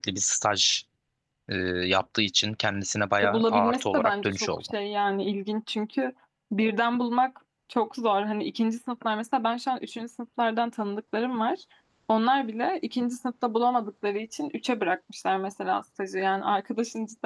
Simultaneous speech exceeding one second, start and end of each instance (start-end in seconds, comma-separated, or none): 3.2-4.6